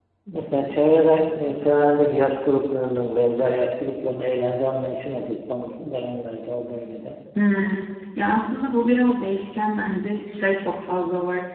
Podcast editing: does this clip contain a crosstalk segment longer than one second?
No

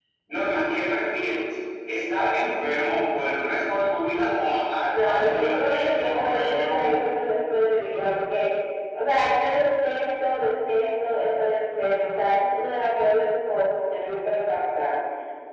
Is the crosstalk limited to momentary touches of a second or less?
No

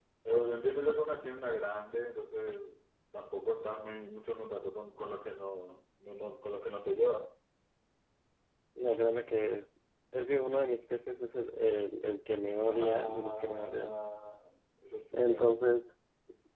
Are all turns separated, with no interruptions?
No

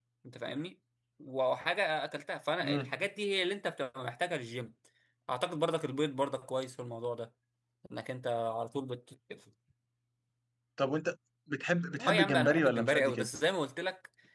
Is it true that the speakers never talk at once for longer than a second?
No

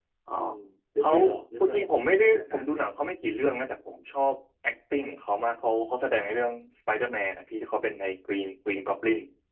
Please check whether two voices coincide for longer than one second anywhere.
Yes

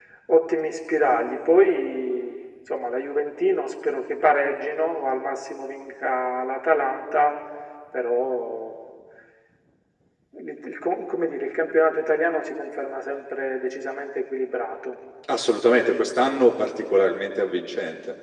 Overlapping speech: No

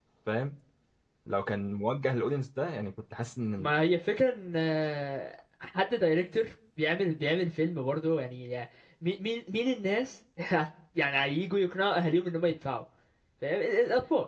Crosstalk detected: No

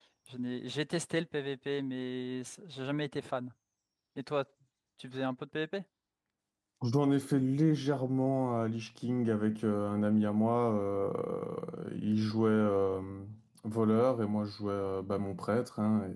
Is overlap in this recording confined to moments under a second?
Yes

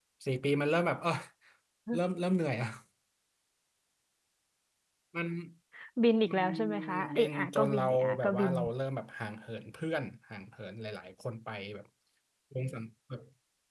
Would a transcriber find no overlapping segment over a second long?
No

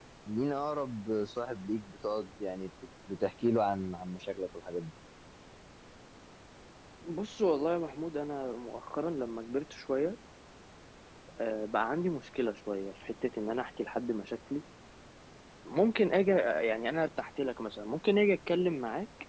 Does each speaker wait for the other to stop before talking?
Yes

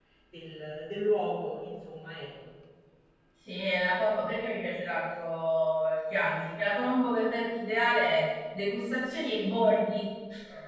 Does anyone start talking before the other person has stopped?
No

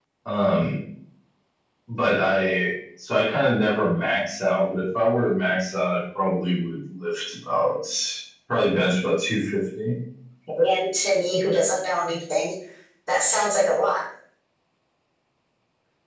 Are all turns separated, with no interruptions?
Yes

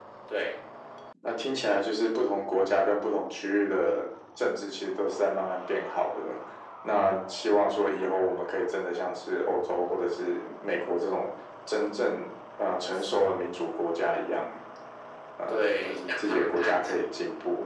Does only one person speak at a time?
No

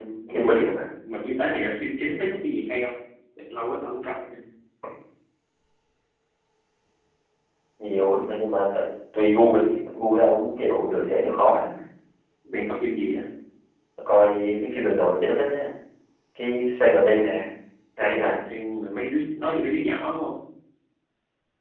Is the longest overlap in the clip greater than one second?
No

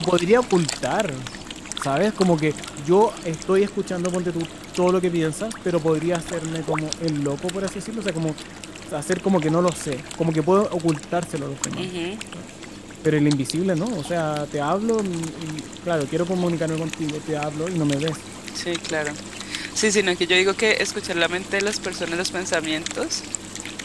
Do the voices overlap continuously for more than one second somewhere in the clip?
No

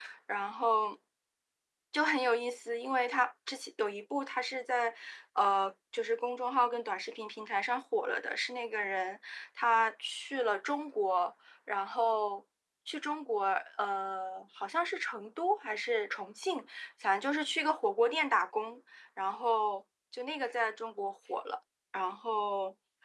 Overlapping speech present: No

